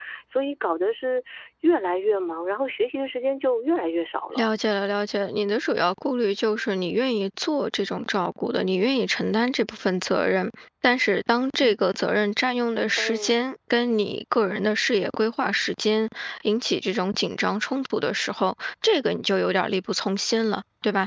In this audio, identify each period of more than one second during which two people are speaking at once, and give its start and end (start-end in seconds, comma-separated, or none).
none